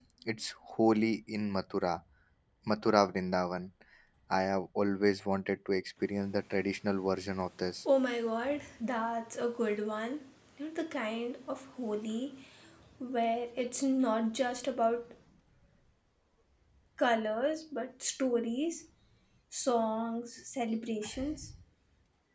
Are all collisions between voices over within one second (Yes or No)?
Yes